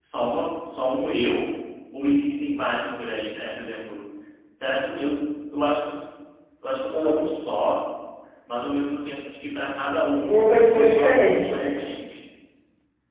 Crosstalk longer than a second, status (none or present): present